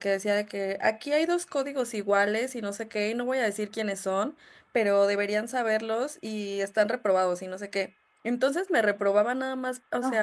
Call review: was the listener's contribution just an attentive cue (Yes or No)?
Yes